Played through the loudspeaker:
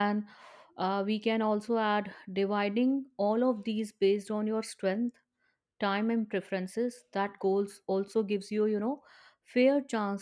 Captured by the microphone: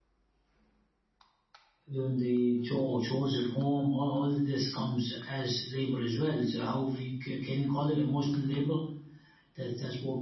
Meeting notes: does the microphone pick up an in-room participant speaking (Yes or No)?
Yes